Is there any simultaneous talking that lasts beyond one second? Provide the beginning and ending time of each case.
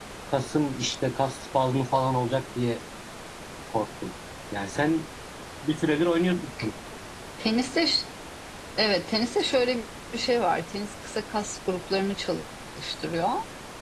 none

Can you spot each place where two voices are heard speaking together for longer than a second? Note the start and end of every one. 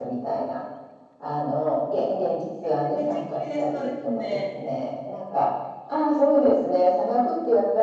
2.6-4.4

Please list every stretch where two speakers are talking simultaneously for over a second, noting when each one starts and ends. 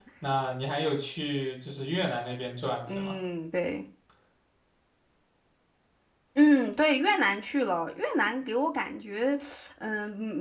none

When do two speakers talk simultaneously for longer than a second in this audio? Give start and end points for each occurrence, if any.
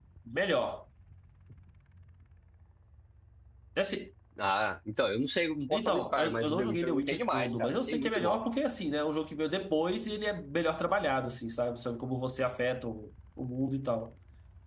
5.7-8.4

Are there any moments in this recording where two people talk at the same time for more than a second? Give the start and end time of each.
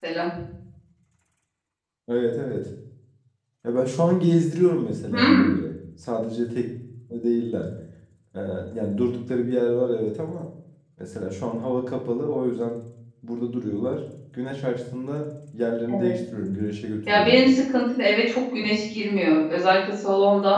none

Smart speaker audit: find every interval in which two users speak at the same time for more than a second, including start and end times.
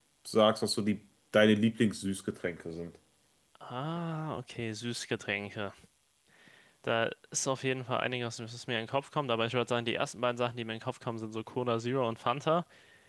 none

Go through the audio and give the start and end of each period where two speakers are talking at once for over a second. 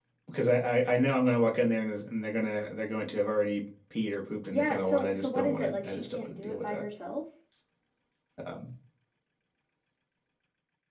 4.5-6.8

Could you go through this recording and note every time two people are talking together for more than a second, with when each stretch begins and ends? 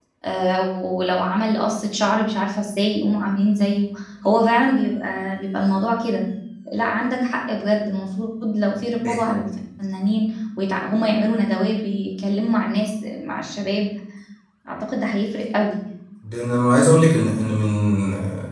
none

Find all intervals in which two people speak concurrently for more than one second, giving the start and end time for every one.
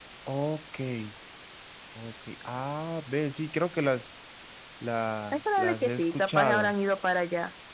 5.3-6.7

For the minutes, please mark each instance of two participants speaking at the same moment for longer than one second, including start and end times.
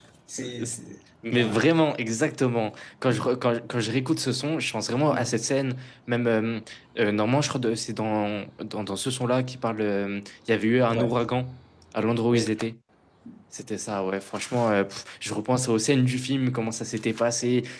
none

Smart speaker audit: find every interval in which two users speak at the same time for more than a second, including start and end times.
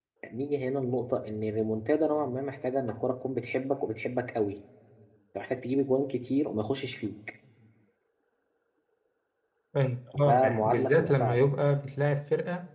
10.1-11.5

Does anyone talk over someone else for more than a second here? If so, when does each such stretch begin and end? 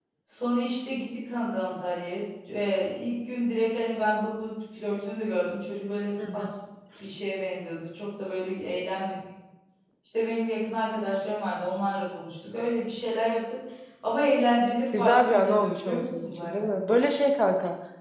15.0-16.7

